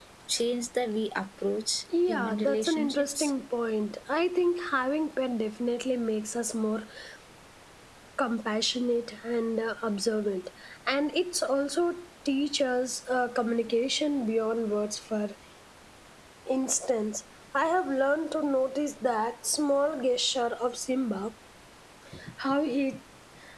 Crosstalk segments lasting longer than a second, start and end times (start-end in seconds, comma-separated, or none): 2.1-3.3